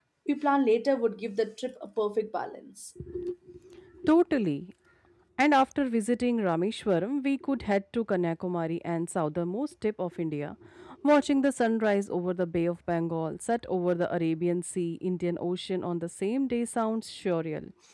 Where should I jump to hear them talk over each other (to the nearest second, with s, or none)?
none